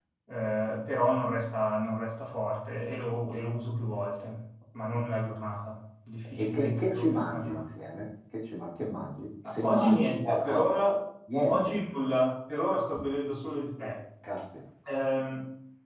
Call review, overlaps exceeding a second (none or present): present